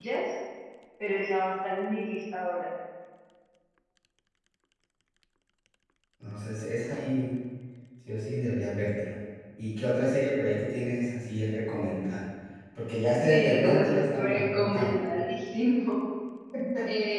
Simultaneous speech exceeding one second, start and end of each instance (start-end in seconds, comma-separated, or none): 13.3-15.0